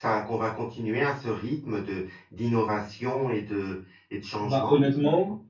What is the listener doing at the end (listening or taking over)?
taking over